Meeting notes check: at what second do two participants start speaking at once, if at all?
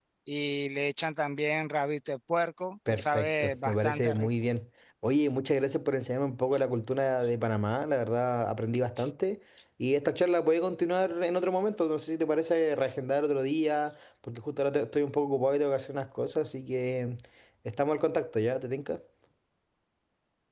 2.9 s

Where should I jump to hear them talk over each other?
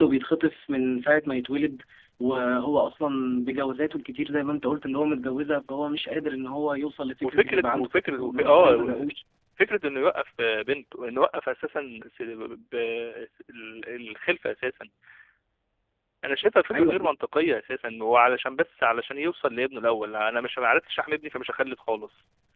7.2 s

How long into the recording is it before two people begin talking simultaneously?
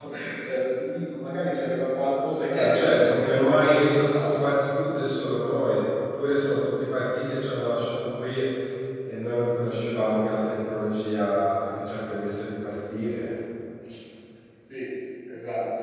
2.5 s

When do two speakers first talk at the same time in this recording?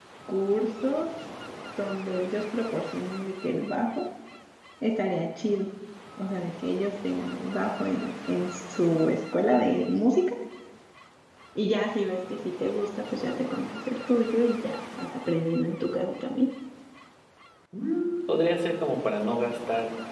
none

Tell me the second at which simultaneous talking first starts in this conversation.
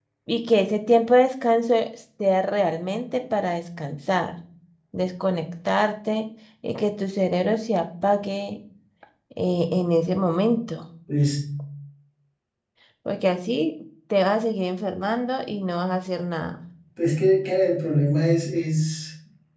none

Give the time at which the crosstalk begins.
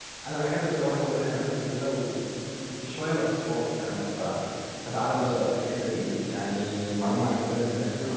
none

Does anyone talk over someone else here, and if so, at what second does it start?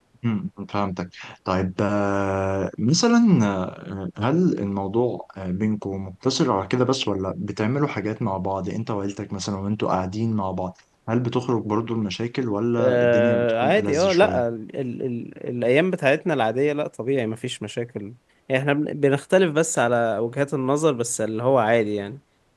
12.8 s

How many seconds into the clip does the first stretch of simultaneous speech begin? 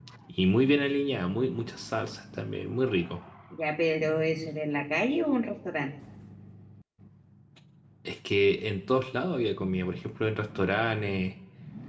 none

